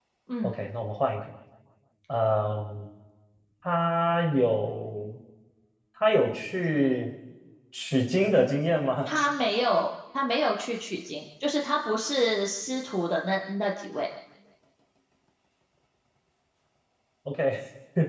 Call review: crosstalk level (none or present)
none